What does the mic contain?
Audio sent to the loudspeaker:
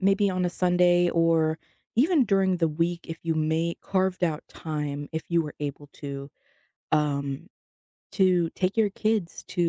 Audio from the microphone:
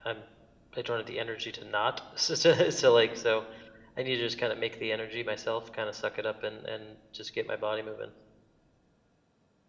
user only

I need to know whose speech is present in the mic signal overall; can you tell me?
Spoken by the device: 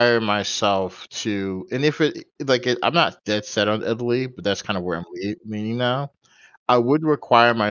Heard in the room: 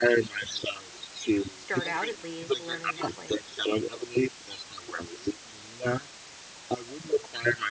both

